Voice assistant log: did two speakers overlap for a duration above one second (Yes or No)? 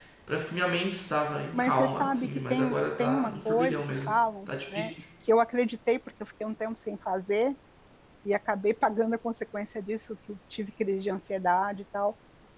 Yes